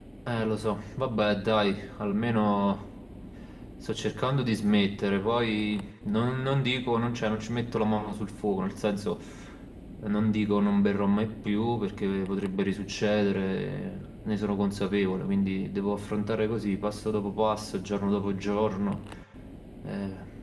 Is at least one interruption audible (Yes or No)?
No